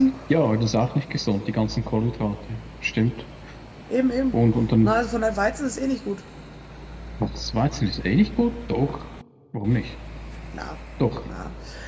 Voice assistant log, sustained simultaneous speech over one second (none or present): none